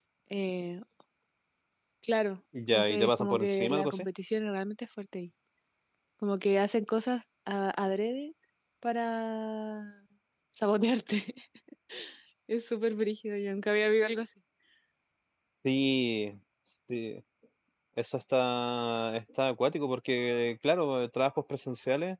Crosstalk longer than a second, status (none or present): present